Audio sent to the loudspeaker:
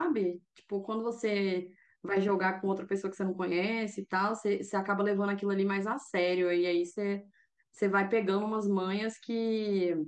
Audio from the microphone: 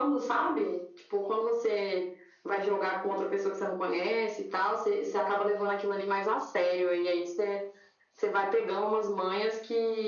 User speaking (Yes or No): No